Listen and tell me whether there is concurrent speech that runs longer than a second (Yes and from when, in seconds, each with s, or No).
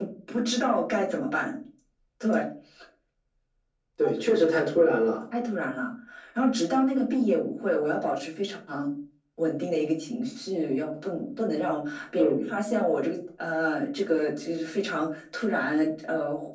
No